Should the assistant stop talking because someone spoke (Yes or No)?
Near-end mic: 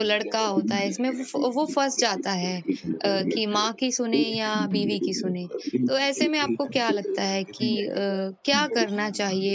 Yes